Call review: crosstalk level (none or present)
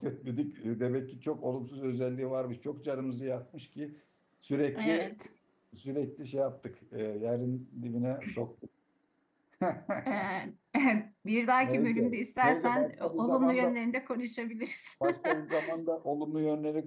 present